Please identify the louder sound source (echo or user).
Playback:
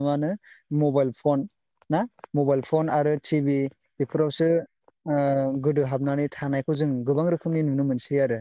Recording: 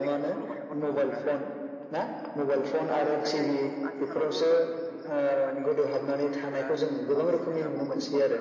echo